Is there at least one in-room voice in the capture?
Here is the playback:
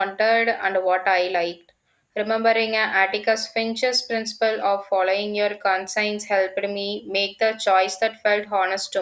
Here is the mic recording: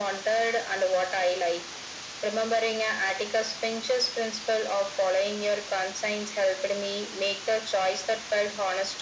No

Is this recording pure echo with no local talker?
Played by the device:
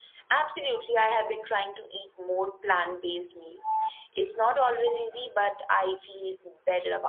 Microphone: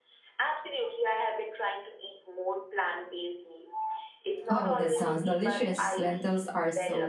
No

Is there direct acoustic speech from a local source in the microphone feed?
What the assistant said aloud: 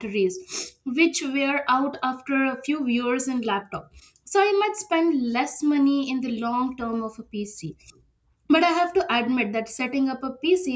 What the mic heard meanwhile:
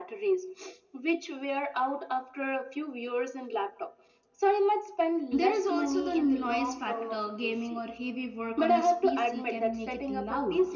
Yes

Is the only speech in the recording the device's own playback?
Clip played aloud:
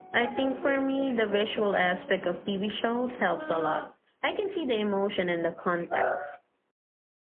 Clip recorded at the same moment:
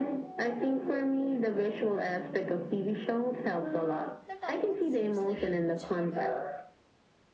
No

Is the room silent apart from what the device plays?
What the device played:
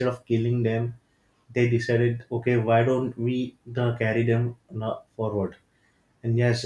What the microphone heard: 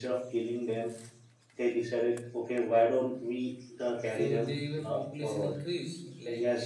No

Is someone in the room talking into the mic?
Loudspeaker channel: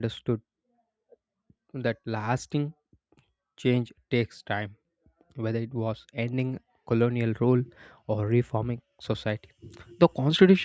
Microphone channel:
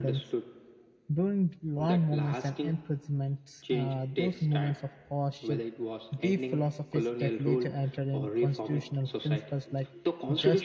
Yes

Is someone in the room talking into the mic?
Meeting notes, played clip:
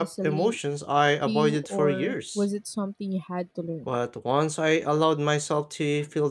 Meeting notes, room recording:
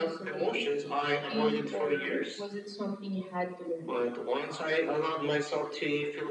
No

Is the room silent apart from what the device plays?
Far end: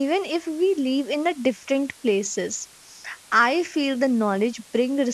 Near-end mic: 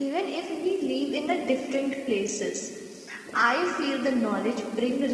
Yes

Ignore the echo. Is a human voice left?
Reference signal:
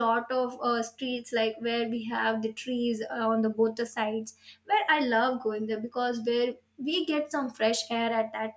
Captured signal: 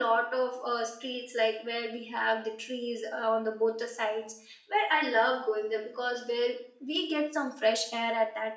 No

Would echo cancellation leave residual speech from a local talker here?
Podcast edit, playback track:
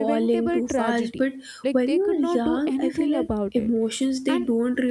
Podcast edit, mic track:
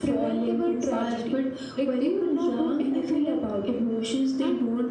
No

